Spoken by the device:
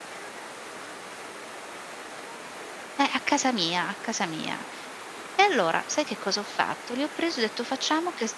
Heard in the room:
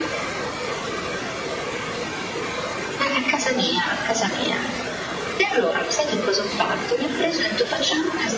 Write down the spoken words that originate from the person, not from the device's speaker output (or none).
none